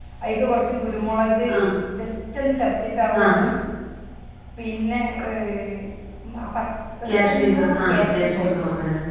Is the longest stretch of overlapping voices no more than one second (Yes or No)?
No